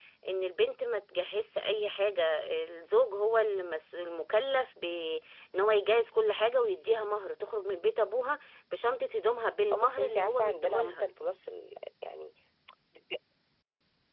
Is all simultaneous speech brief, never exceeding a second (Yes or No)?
No